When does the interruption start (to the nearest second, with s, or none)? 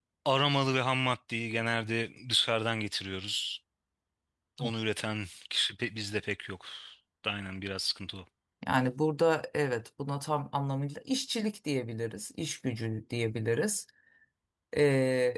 none